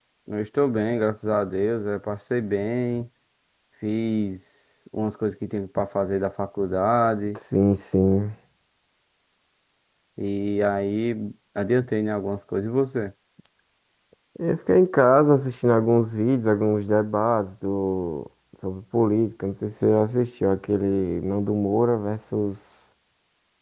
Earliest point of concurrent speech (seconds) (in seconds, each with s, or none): none